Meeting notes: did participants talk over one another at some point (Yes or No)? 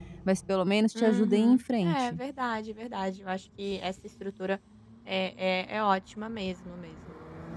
Yes